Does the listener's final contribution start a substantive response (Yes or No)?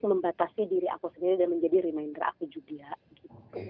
Yes